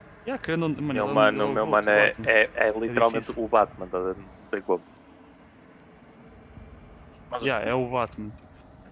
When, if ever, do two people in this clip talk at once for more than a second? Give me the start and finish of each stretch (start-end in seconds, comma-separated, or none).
0.9-2.3